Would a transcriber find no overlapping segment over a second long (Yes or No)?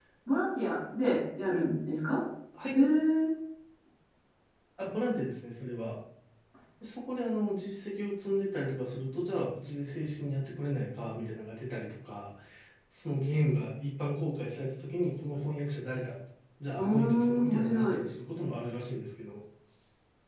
No